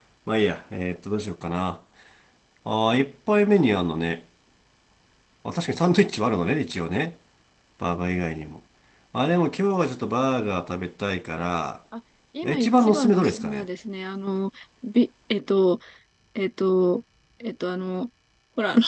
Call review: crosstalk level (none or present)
present